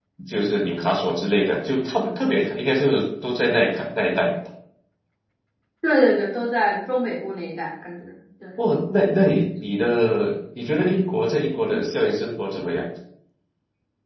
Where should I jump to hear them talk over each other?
none

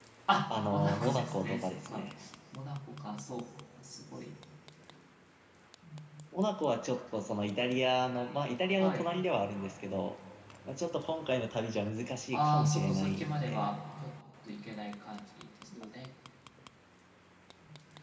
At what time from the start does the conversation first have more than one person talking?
1 s

